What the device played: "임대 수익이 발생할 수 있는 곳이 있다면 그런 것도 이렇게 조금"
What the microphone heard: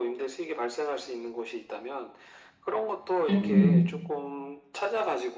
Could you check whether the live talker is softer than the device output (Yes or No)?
No